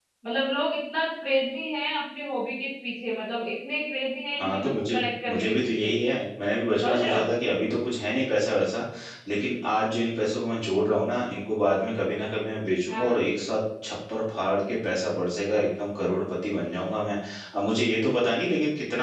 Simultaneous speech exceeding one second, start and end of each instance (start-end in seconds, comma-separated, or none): 4.4-5.9